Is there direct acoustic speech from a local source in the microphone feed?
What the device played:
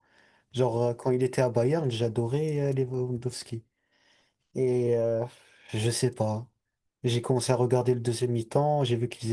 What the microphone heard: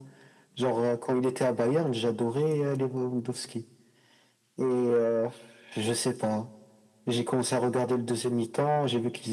No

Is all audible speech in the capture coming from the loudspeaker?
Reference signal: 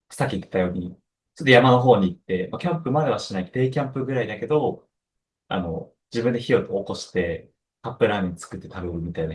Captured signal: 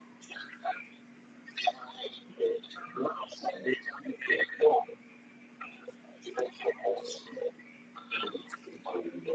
Yes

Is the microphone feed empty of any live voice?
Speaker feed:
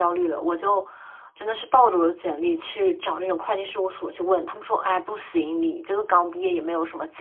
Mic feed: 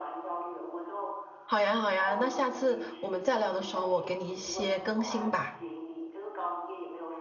No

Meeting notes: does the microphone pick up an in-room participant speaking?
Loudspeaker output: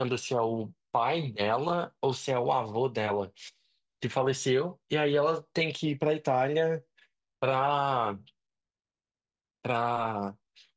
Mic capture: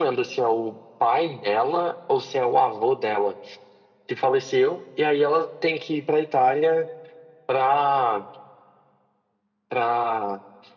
No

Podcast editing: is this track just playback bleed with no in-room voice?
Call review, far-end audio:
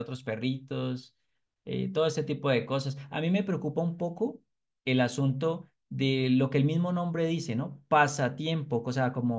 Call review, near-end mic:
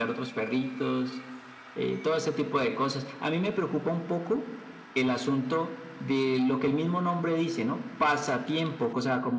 Yes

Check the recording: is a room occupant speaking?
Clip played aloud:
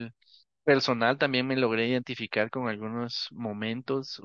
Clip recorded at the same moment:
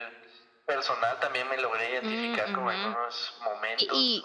Yes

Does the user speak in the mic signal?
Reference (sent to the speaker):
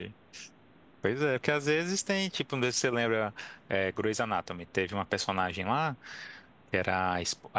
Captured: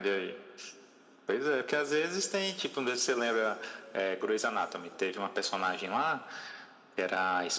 No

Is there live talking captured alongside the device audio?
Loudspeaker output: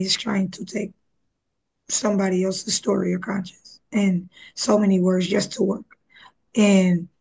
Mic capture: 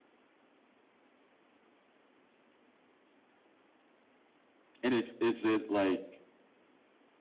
Yes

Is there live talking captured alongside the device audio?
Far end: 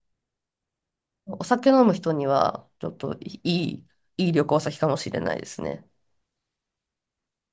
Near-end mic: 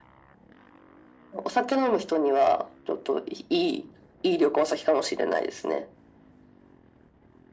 No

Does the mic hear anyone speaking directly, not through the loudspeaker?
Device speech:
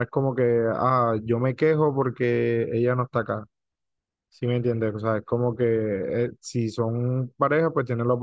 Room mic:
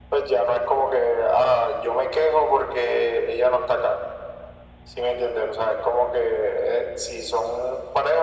No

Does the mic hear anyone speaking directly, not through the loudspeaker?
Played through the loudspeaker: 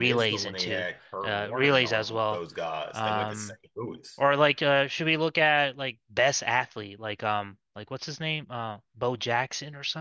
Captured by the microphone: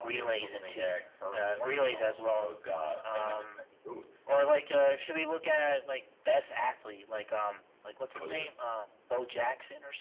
Yes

